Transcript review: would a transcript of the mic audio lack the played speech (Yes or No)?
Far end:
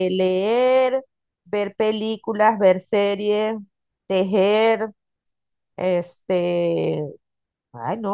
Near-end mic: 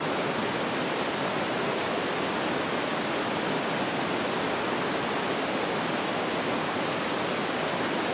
Yes